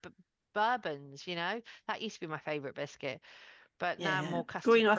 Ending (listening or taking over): taking over